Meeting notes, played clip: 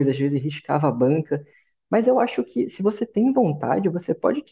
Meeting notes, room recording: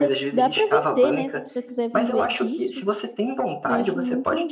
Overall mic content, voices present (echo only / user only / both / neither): both